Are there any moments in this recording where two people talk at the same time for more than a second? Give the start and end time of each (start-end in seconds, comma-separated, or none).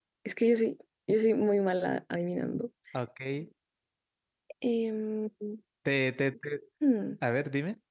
none